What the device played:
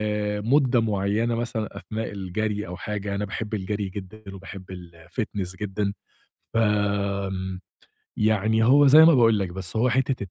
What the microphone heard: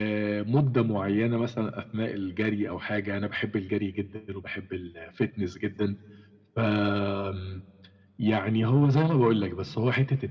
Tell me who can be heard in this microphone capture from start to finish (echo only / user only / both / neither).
echo only